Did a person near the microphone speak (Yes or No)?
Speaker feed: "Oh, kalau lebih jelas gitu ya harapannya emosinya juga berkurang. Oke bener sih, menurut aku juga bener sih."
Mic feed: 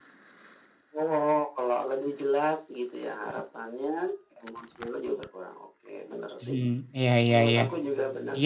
Yes